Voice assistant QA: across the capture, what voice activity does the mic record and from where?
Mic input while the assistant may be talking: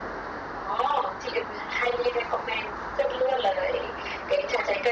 echo only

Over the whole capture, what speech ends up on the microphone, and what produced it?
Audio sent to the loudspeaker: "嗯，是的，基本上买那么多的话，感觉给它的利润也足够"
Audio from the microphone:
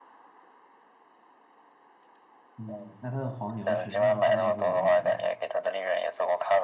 both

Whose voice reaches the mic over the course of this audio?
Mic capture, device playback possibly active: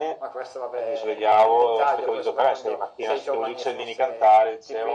echo only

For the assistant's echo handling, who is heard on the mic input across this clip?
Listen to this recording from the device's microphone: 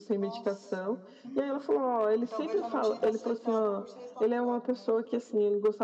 both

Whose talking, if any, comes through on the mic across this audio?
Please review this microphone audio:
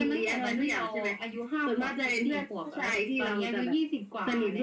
echo only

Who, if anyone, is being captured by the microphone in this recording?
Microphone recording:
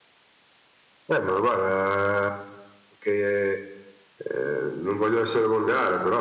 echo only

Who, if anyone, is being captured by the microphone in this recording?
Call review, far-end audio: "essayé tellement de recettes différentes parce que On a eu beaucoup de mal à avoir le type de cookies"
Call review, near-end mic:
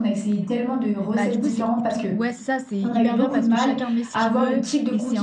both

